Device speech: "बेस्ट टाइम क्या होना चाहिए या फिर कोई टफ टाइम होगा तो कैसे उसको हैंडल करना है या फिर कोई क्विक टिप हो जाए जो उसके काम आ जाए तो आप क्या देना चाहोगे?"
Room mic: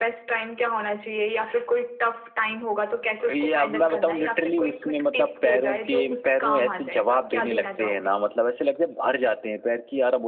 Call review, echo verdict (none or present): present